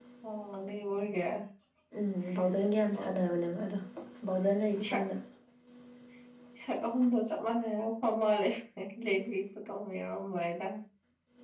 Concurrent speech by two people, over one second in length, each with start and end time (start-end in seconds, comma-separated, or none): none